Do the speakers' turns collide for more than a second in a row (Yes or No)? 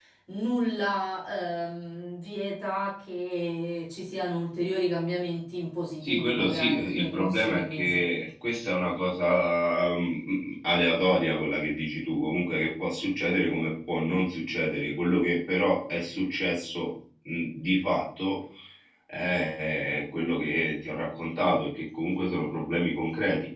Yes